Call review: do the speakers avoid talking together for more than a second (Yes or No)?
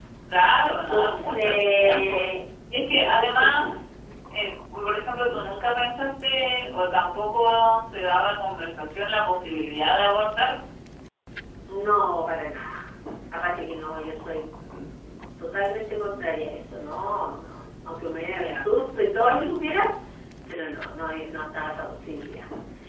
No